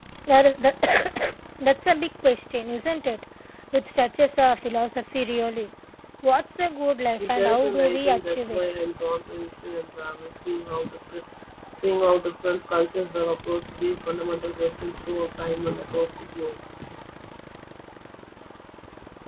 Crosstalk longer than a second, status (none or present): present